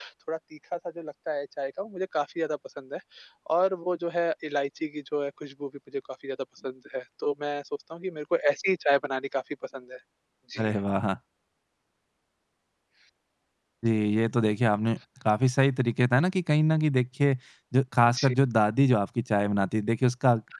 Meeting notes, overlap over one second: none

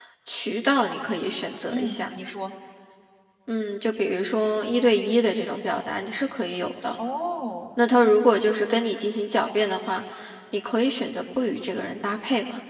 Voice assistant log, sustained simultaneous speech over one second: none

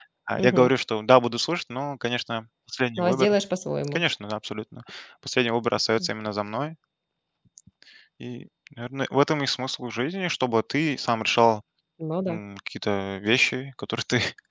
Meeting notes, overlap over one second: none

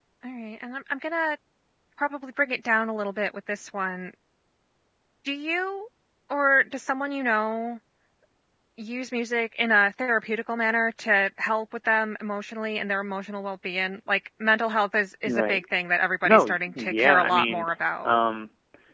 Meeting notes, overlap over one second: present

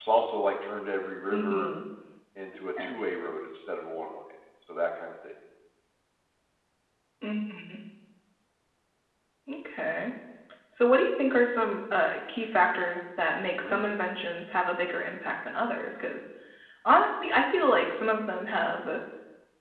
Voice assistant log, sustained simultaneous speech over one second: none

